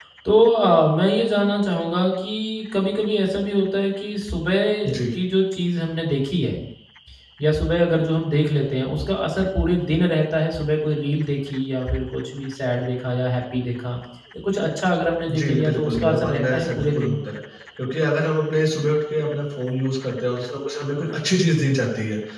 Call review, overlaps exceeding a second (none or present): present